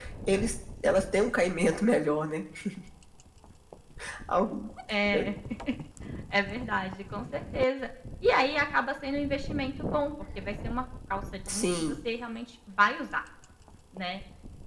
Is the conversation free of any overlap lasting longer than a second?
Yes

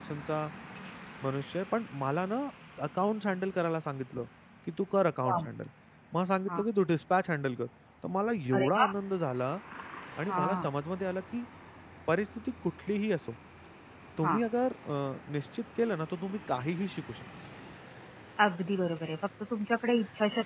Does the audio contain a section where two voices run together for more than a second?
No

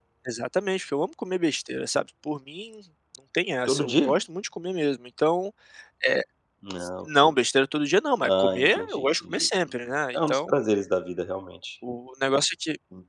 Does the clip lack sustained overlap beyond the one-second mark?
No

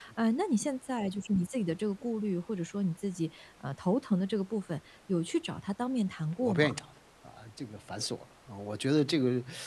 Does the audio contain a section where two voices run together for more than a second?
No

